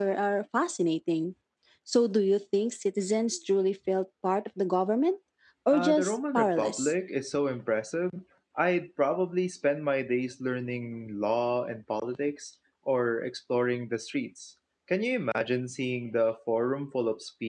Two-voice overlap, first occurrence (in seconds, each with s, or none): 5.7 s